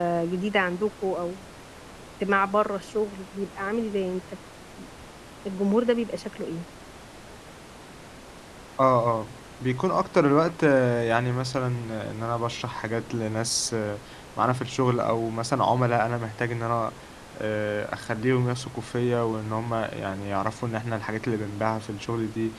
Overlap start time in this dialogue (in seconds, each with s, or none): none